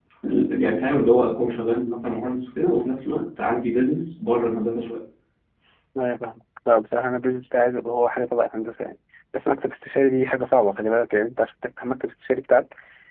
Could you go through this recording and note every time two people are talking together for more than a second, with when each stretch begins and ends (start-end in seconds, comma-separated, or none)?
none